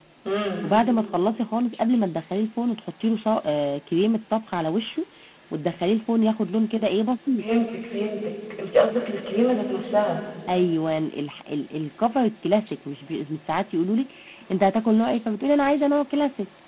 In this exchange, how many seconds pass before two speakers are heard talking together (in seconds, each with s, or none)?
none